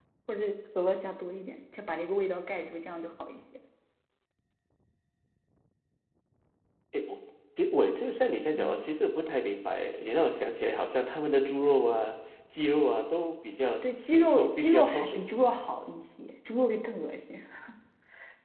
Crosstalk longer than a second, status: present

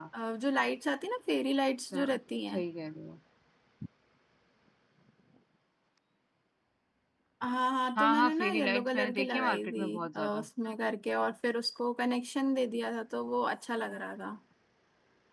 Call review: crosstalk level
present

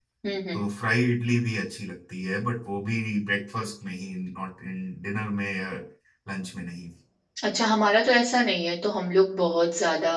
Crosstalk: none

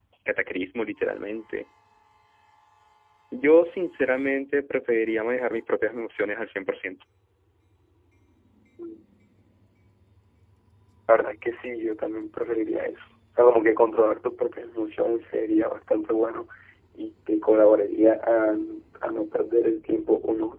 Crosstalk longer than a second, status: none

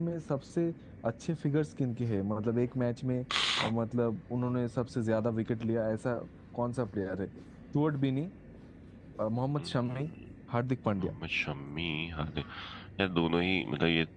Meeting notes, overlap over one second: none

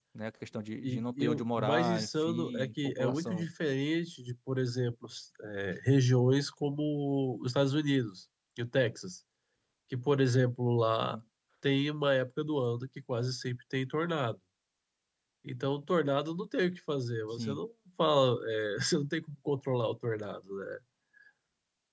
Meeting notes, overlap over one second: present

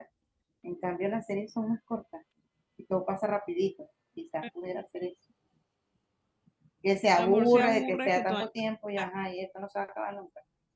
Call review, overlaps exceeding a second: present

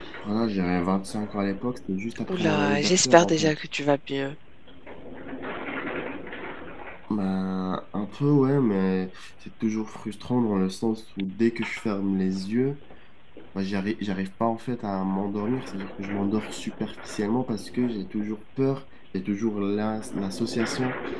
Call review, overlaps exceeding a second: present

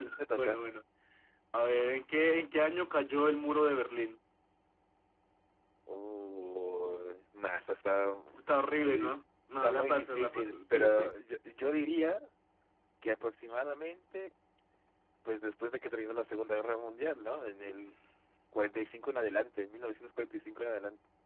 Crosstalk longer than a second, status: present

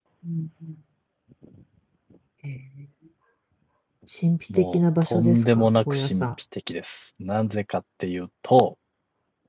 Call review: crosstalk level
present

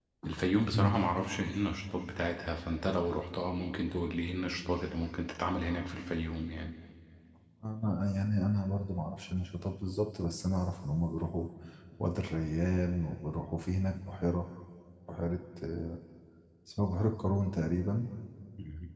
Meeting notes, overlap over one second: none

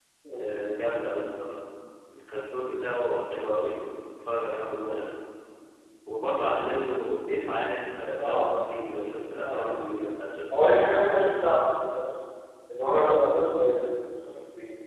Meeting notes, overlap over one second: none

